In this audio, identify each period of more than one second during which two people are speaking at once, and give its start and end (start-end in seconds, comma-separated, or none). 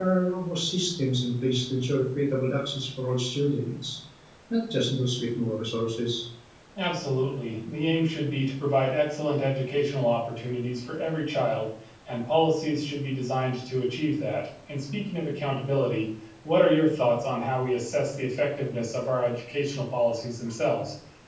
none